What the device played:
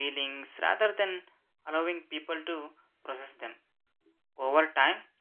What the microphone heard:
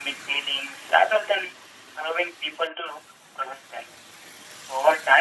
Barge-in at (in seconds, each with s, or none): none